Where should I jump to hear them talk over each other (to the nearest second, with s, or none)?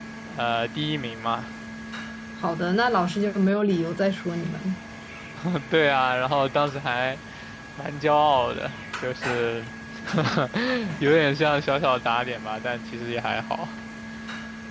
none